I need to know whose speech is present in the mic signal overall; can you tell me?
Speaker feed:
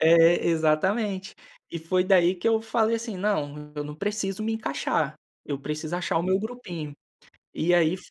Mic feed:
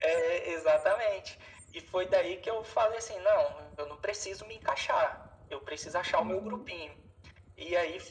both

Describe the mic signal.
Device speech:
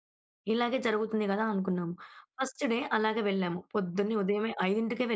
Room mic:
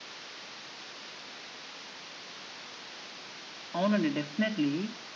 user only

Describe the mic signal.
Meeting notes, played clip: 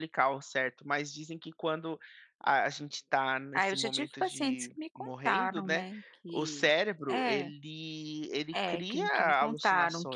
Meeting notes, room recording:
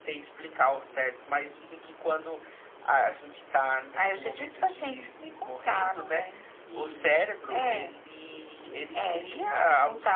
echo only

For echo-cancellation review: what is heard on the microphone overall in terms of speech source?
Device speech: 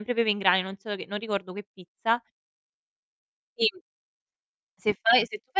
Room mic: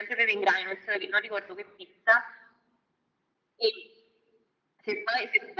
echo only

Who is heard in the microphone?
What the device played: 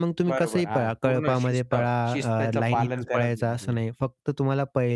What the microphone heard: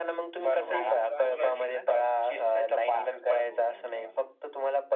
both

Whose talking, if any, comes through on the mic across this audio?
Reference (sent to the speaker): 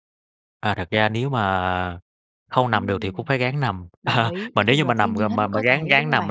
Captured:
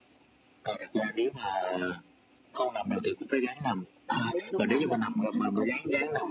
both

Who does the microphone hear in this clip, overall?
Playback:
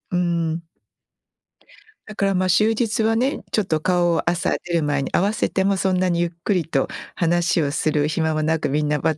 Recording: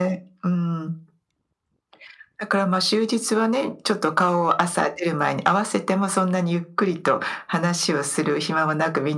echo only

